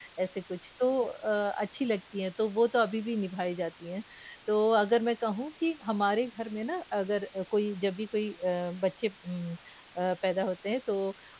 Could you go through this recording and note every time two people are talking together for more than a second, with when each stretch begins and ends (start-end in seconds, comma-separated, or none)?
none